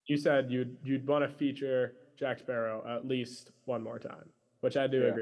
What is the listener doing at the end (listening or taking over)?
listening